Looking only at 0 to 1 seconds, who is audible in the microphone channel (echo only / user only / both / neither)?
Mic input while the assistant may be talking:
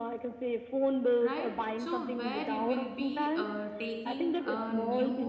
echo only